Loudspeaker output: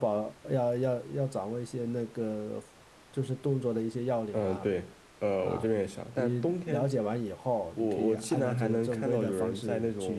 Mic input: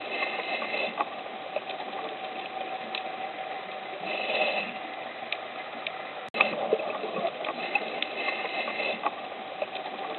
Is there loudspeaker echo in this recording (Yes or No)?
No